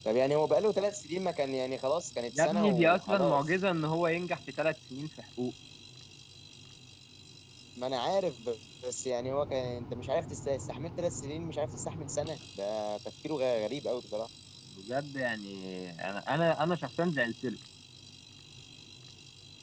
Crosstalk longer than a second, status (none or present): present